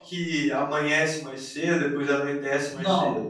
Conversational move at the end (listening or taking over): taking over